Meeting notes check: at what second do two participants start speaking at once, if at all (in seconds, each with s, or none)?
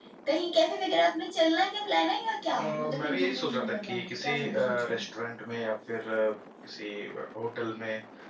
2.5 s